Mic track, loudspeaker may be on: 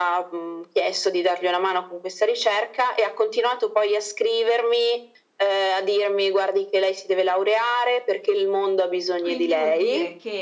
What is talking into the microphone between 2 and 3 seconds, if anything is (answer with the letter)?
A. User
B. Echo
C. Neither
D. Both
B